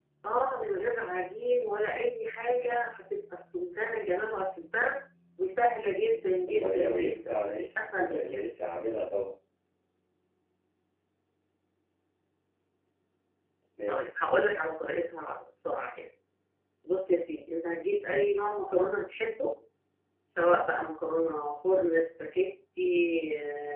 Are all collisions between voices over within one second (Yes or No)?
No